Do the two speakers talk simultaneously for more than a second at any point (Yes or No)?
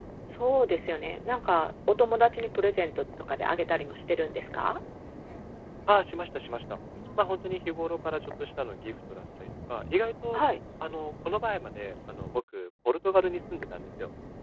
No